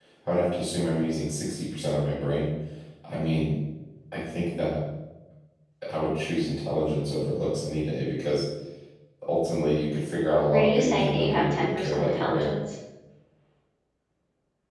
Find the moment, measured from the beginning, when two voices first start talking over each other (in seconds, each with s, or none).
10.5 s